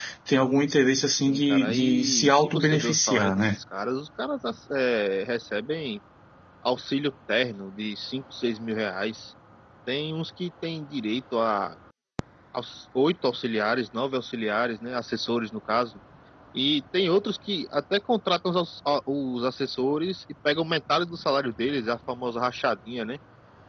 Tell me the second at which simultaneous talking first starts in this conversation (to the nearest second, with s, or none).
1 s